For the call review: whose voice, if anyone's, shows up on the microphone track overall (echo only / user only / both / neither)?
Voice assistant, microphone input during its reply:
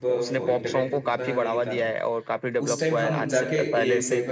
both